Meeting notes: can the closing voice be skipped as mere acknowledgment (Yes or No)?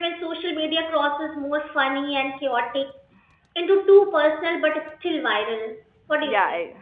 No